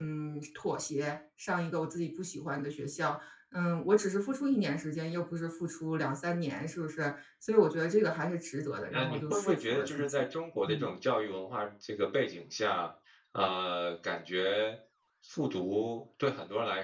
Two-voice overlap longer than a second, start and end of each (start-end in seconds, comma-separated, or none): 8.9-10.2